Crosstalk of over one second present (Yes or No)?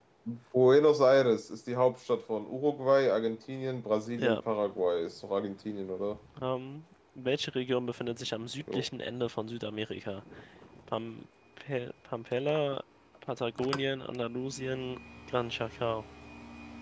No